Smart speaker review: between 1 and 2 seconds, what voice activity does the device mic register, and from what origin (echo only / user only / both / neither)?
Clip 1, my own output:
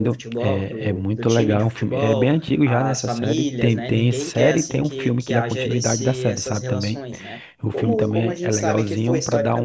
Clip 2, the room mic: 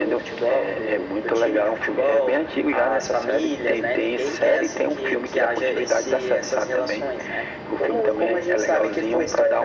echo only